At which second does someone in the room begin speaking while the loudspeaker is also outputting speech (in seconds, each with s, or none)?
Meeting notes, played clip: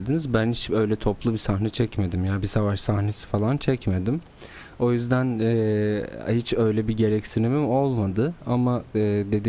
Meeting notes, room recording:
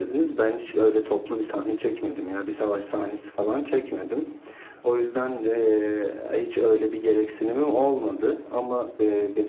none